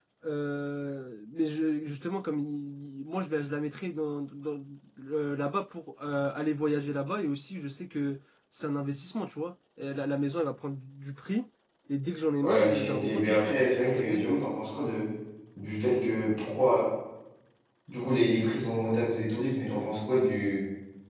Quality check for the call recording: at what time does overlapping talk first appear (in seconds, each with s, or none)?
12.4 s